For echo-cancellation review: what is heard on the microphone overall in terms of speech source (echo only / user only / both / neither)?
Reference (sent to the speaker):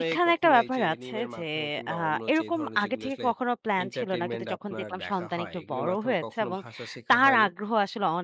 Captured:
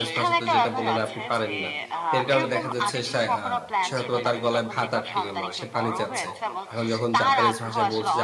both